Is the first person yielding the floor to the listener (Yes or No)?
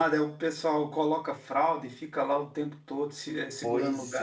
Yes